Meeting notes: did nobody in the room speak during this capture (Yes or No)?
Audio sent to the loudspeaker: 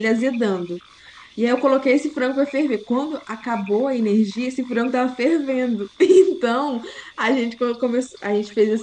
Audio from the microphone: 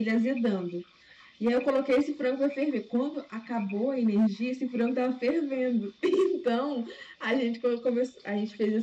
Yes